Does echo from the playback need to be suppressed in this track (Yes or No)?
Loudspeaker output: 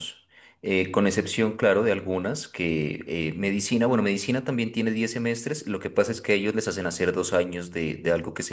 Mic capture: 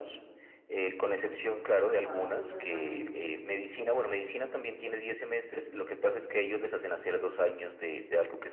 Yes